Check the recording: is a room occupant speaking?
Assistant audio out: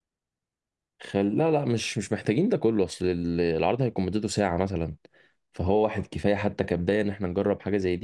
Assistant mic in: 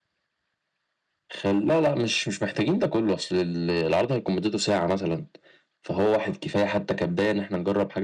No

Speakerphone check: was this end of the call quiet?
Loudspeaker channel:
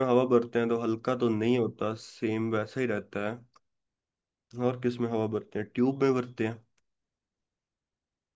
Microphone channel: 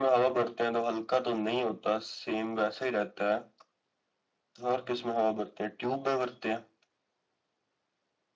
Yes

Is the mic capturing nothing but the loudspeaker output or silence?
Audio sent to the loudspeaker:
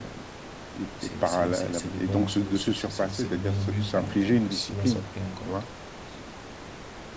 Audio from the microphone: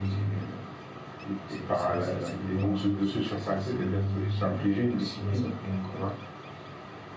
Yes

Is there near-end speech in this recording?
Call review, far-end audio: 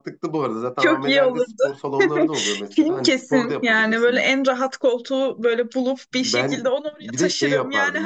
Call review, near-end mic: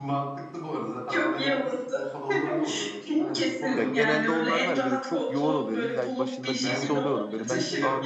Yes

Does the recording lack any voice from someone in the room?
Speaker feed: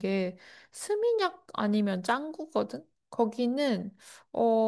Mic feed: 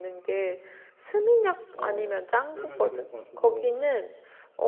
No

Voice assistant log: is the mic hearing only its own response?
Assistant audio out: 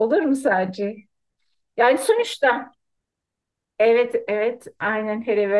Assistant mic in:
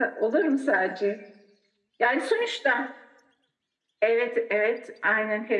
Yes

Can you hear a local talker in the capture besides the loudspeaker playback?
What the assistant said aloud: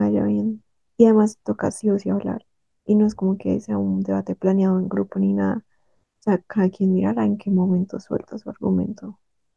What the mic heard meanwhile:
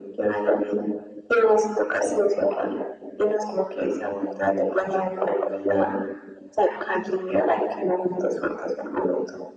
No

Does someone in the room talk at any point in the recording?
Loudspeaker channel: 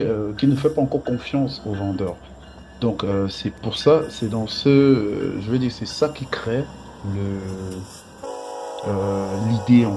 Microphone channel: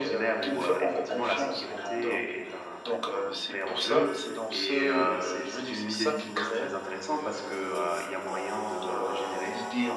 Yes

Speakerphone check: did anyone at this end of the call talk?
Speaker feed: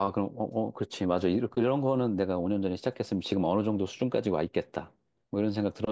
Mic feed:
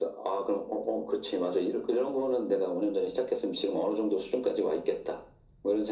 No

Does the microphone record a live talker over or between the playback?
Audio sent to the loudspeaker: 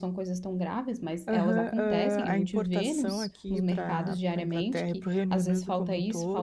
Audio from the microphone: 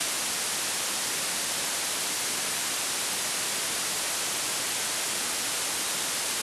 No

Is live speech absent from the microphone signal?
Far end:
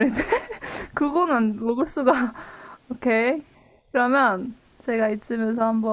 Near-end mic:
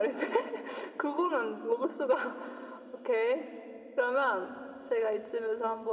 Yes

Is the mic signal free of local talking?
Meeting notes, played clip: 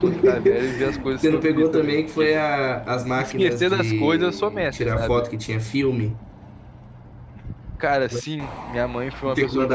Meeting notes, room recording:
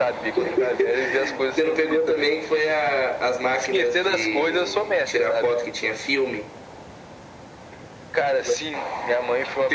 Yes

